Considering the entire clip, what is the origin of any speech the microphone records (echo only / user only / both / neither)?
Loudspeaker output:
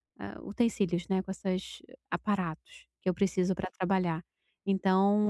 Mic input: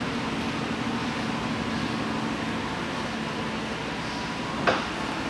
neither